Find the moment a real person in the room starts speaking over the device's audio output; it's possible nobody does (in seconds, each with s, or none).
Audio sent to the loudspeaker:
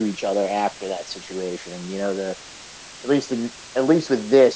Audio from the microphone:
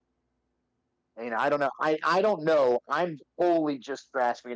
1.1 s